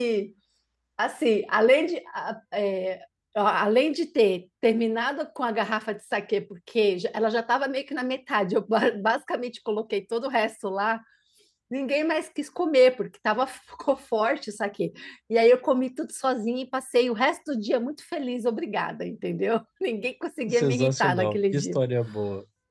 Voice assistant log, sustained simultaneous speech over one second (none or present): present